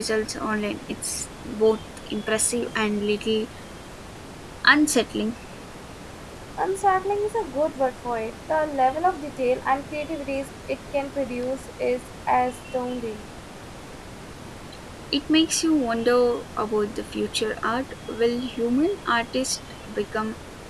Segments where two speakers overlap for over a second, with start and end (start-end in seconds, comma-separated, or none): none